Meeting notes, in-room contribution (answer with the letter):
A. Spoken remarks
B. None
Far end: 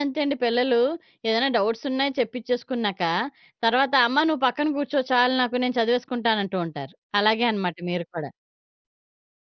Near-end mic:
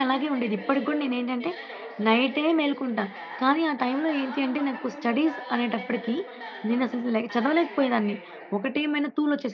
A